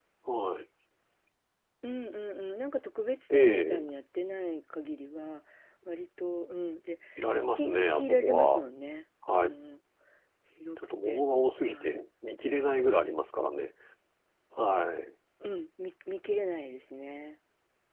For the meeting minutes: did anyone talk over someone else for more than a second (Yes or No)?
Yes